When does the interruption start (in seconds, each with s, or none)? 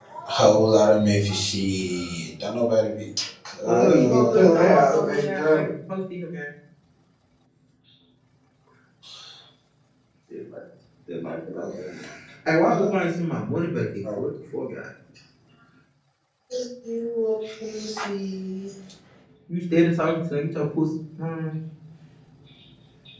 3.8 s